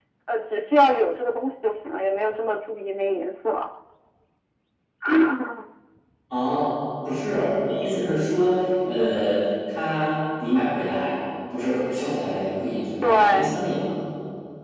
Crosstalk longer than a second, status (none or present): none